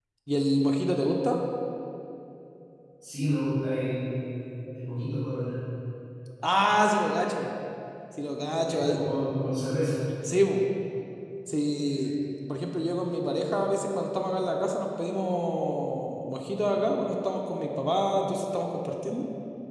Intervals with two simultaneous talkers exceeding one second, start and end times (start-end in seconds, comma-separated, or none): none